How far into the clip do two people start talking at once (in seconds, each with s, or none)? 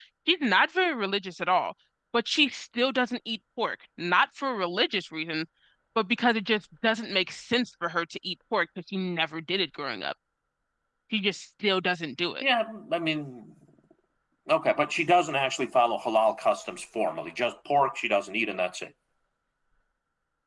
none